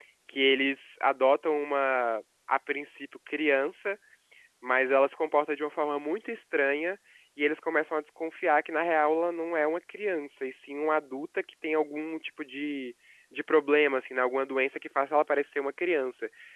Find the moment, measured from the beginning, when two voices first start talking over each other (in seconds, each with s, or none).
none